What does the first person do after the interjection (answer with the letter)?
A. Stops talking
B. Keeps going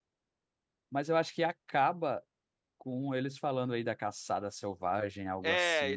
A